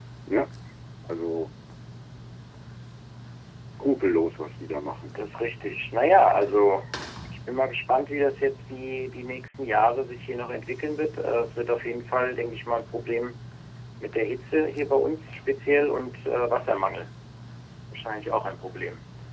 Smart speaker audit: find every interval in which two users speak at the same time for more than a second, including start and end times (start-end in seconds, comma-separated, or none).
none